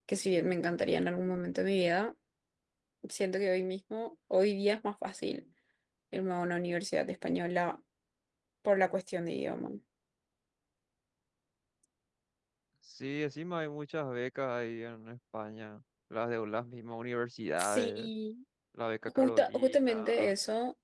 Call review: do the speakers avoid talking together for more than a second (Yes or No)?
No